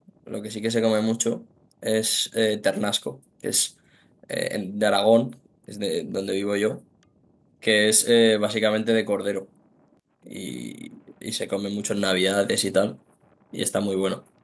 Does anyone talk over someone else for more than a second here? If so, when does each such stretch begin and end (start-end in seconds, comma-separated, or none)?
none